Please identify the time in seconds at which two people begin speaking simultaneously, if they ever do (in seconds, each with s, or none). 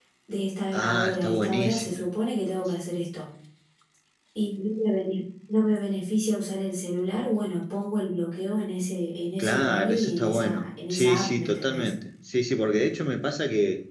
0.7 s